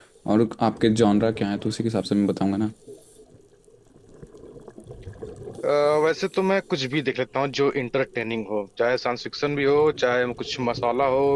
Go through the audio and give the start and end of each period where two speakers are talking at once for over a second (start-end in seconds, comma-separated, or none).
none